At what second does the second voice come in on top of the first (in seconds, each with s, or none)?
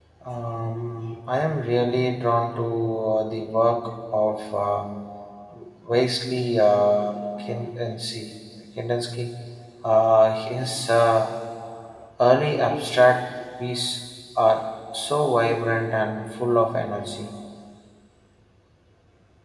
none